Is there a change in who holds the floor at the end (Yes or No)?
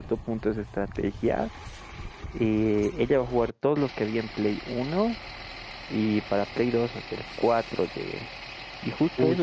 No